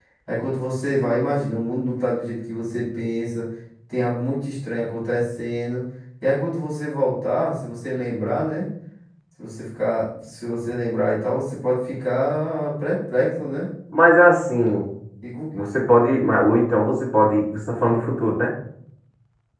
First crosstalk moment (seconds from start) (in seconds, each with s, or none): none